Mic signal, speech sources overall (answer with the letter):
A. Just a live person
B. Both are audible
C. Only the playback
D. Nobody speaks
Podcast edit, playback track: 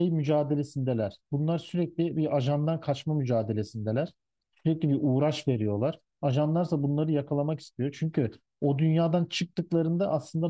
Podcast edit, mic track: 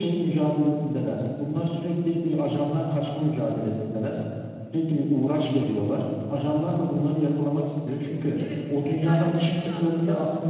B